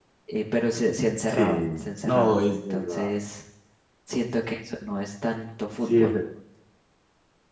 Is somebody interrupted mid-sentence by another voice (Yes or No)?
Yes